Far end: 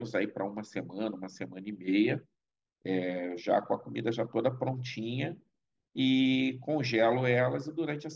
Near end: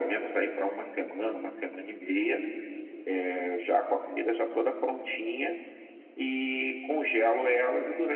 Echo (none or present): present